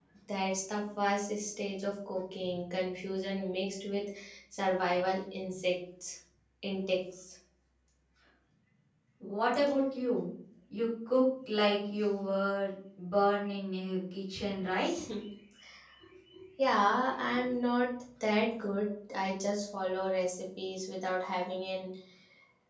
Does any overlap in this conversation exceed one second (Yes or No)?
No